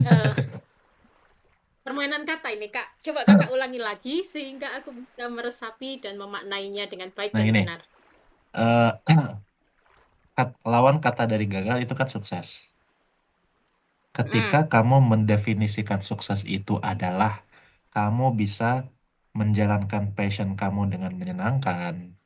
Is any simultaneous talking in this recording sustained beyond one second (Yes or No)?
No